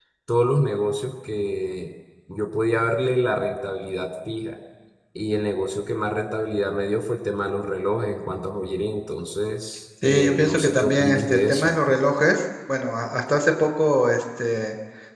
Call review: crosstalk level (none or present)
present